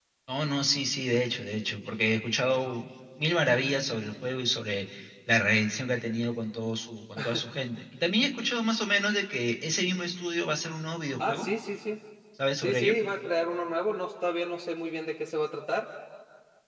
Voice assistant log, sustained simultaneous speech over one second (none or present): none